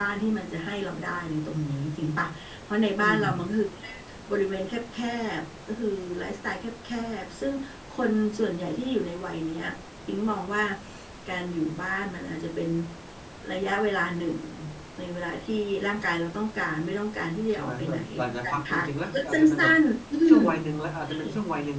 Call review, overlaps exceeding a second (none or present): present